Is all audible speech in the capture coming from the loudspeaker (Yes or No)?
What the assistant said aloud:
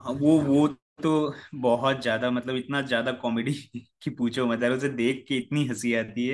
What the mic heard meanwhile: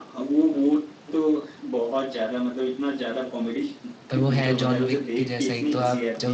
No